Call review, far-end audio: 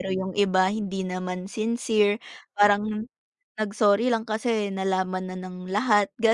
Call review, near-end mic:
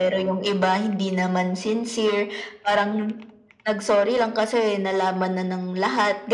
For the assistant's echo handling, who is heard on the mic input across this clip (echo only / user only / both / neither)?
echo only